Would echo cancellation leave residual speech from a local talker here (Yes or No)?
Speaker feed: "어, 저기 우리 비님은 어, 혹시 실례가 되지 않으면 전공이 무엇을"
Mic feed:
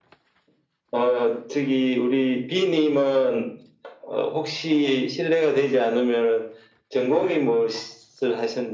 No